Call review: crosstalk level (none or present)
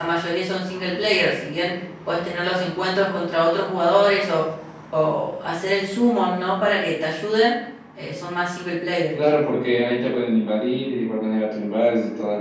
none